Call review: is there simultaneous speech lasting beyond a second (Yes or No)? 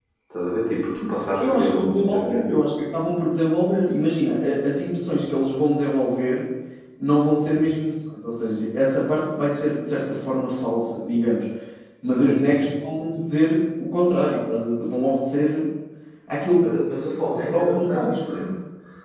Yes